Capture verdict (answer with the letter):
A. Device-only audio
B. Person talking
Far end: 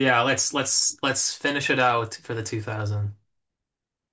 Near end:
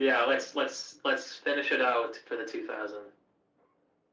A